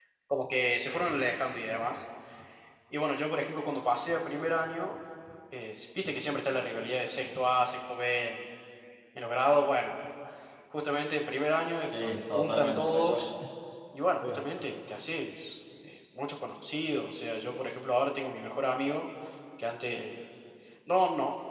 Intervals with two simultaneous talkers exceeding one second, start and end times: 12.0-13.2

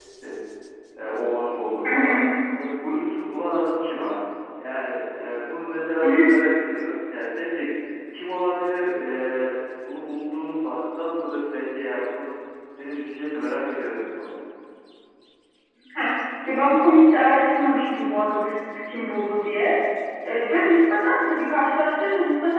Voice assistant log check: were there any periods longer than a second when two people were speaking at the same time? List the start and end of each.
none

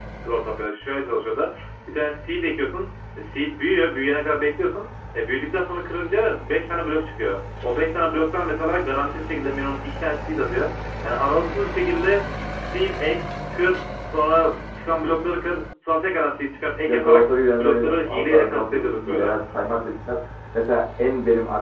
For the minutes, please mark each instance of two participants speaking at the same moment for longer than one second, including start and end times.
16.9-19.3

